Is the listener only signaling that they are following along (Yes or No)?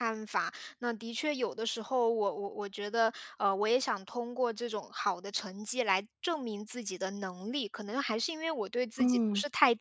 Yes